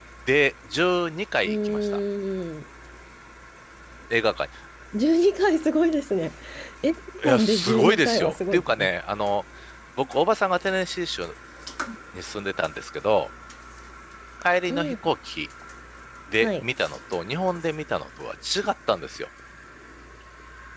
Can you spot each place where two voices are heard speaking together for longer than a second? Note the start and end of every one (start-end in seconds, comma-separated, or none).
7.2-8.9